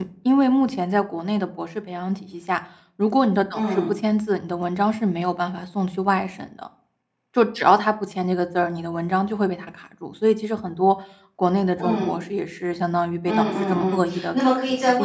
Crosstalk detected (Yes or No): Yes